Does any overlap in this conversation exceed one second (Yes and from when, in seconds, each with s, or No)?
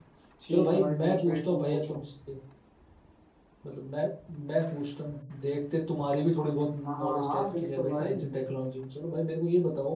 Yes, from 0.5 s